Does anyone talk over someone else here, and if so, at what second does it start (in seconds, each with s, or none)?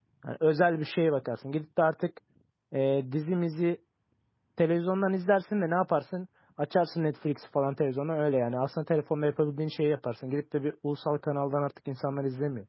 none